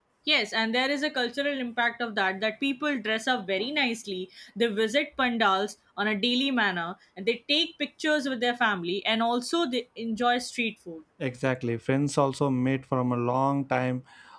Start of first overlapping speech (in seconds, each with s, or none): none